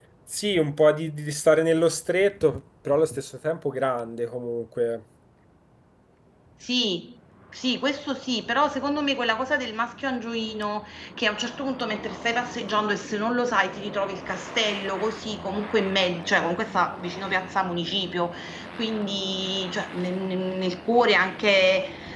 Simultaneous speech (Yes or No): No